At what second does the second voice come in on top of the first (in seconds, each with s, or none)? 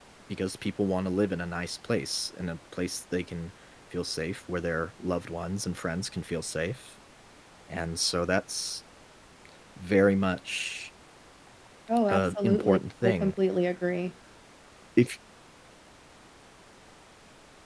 12.1 s